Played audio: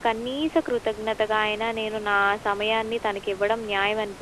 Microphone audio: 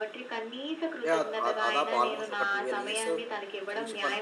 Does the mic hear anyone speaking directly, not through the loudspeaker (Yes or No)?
Yes